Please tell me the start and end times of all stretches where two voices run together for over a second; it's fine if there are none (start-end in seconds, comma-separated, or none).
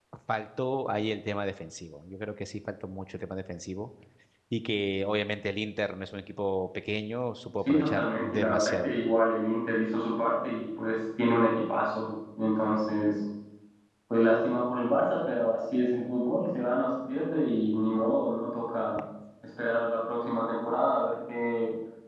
7.7-9.1